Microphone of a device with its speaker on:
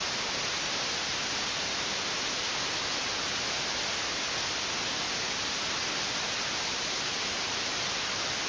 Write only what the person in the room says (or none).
none